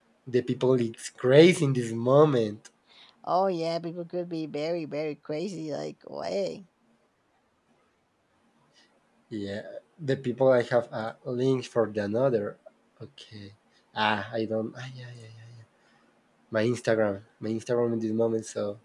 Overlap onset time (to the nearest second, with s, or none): none